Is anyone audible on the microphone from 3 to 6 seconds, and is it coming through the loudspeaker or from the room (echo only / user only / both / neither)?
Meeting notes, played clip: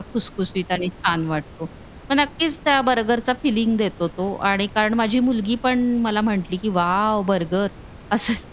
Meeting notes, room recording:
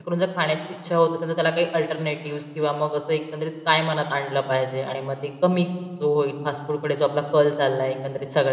user only